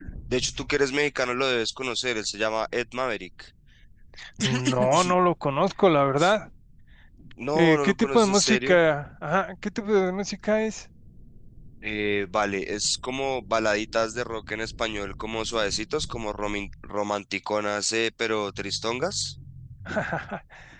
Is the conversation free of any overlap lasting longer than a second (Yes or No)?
No